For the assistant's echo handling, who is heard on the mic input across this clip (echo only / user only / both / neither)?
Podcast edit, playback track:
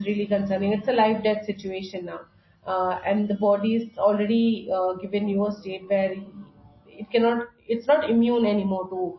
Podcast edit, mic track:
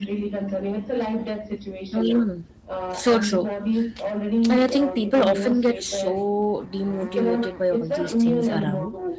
both